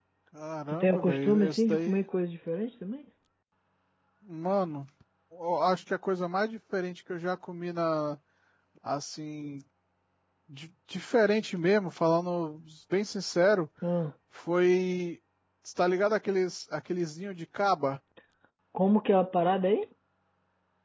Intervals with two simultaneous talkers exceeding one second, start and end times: 0.7-2.0

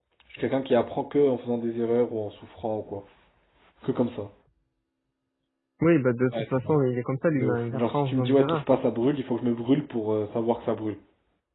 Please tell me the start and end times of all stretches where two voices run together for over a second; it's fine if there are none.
7.4-8.6

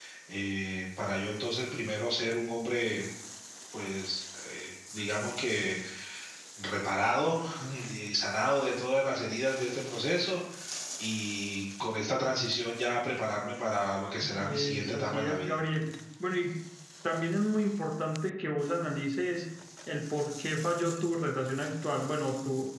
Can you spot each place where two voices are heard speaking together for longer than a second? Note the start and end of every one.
14.2-15.6

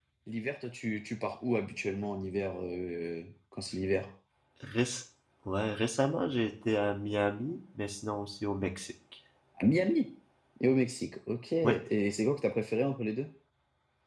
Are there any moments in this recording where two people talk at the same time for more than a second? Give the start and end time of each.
none

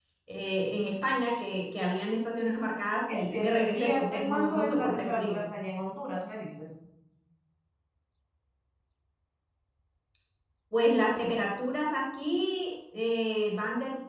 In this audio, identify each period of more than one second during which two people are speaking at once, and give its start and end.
3.1-5.4

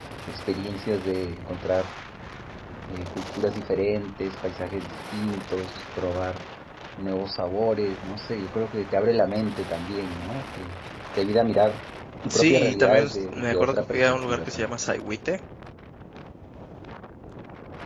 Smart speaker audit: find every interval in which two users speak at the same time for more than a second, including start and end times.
12.3-14.7

